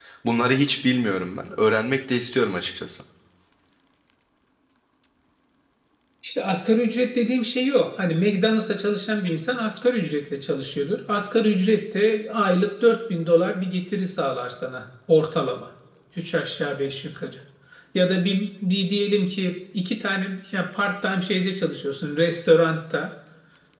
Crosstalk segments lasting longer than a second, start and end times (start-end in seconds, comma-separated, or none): none